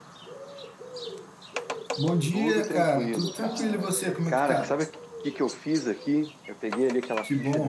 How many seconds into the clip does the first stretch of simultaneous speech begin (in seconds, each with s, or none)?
2.3 s